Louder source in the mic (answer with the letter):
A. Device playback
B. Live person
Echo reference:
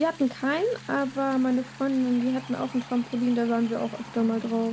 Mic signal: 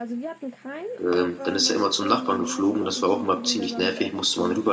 B